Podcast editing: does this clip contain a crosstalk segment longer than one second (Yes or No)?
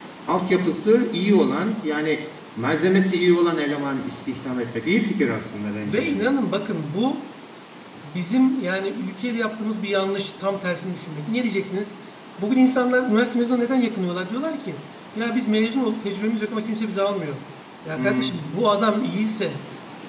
No